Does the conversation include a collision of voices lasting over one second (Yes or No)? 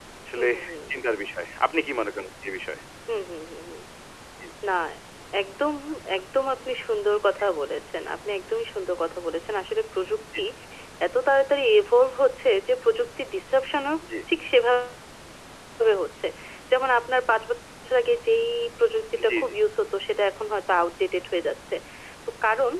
No